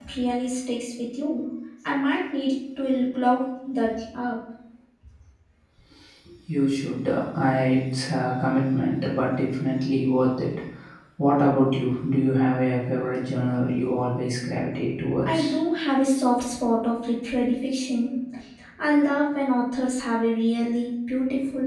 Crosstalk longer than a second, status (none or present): none